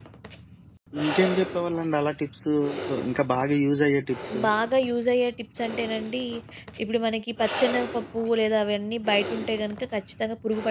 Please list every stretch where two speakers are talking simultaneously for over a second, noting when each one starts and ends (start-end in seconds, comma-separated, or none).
none